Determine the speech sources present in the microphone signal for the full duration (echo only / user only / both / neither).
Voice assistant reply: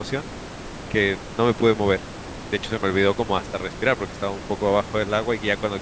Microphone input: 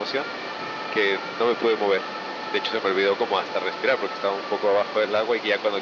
echo only